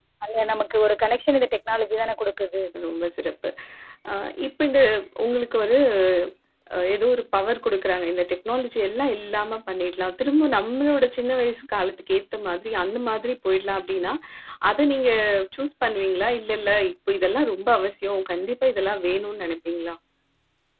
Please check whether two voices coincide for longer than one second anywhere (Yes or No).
No